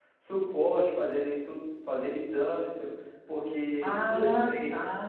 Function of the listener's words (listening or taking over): taking over